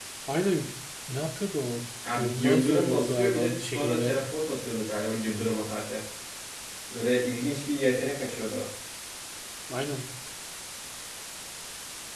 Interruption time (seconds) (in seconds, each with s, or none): 2.0 s